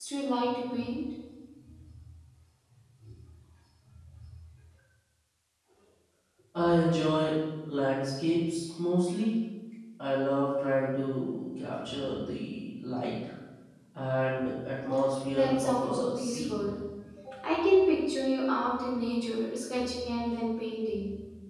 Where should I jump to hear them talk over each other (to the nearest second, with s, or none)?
15 s